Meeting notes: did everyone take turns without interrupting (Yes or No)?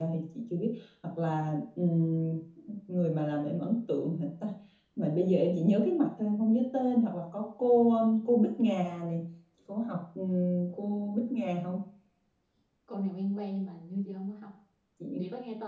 Yes